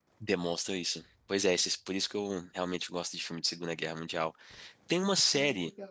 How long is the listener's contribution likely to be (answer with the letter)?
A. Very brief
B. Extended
A